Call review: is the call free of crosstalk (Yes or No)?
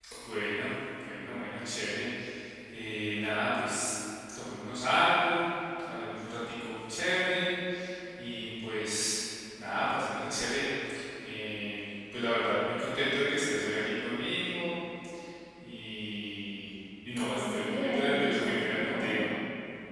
No